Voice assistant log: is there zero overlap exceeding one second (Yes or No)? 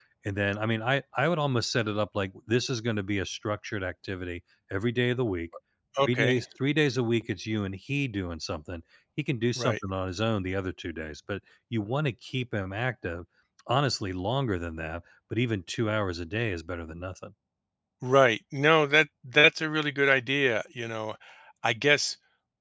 Yes